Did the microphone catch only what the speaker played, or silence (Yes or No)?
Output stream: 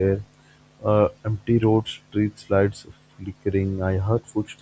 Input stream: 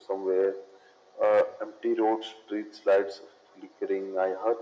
Yes